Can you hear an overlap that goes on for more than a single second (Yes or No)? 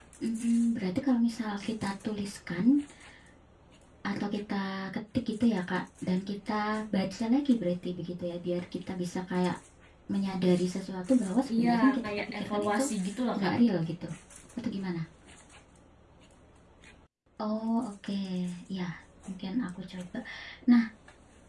Yes